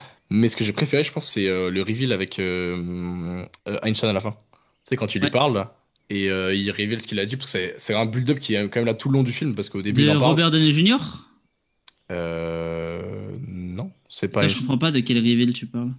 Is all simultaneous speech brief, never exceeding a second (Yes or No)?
Yes